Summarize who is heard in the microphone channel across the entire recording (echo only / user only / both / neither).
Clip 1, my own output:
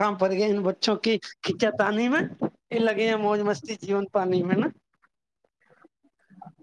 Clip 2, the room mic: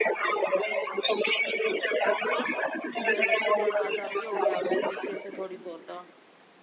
both